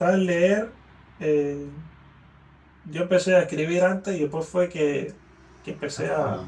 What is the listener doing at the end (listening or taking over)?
listening